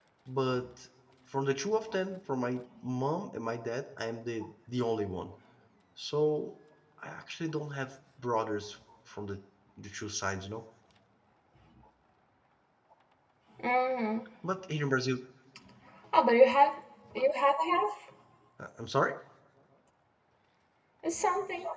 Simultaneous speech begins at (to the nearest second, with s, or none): none